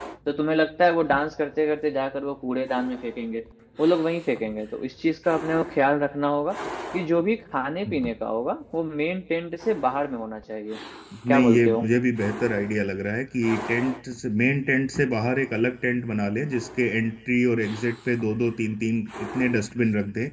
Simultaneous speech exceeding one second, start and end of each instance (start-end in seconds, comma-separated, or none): none